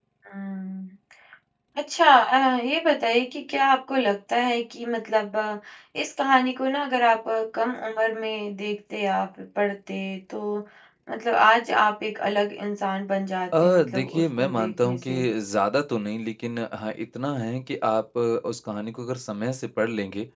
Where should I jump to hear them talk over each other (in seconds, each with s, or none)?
13.5 s